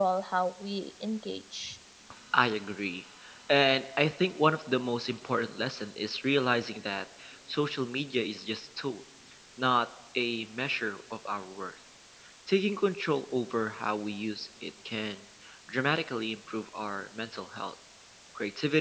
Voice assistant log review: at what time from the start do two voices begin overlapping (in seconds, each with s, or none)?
none